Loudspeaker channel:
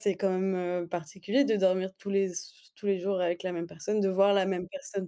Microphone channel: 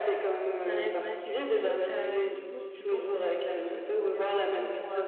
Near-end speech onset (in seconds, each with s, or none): 0.6 s